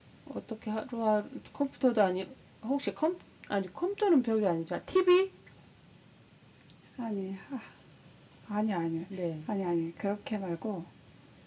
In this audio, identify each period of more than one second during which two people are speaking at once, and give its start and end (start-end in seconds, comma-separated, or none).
none